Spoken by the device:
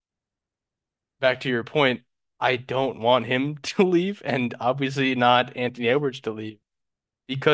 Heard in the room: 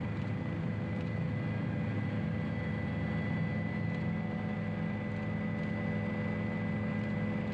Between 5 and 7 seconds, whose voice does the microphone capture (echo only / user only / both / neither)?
neither